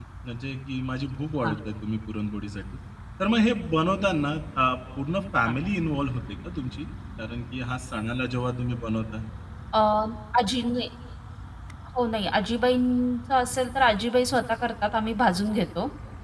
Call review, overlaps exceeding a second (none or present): none